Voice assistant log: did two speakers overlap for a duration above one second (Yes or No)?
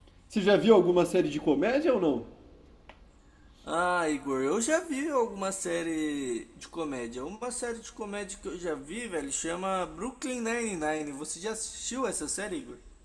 No